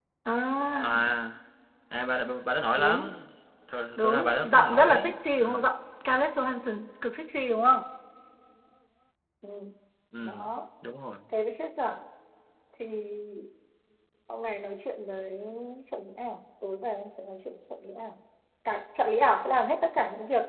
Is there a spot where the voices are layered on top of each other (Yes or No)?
Yes